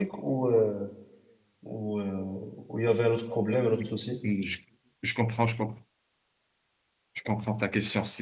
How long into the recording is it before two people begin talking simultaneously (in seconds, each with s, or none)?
none